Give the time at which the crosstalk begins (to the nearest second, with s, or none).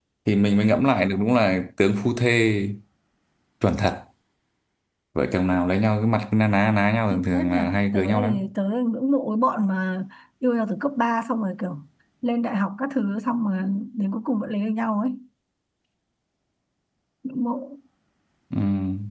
7 s